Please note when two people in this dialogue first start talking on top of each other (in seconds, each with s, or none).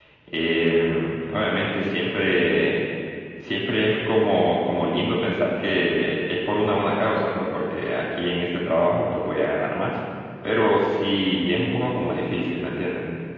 none